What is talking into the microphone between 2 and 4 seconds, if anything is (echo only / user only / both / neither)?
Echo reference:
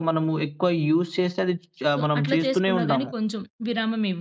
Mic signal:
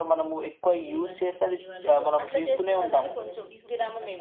both